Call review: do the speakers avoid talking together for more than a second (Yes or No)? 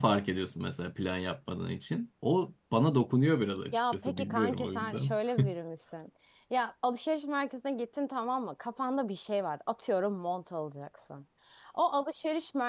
No